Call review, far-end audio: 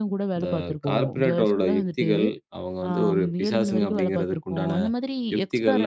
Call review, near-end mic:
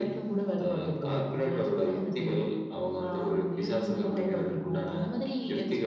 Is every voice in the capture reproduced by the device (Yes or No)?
Yes